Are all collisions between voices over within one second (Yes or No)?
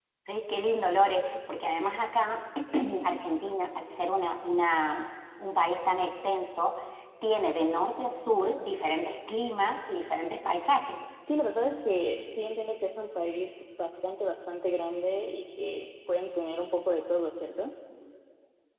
Yes